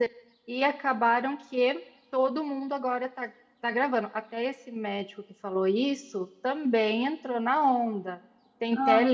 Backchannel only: Yes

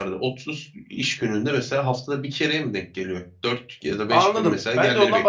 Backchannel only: No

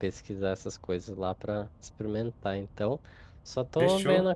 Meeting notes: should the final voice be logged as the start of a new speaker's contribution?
No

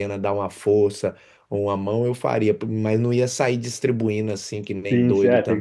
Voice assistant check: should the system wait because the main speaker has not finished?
No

